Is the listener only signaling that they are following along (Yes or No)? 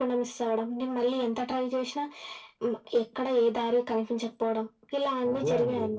No